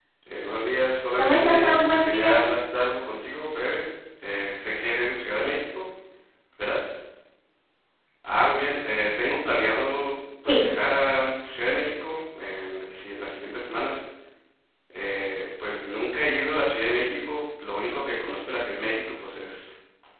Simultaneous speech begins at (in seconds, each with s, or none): 1.2 s